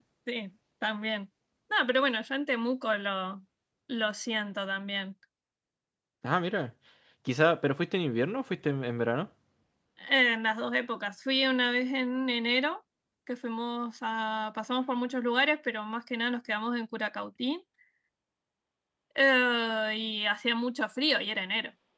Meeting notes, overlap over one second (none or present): none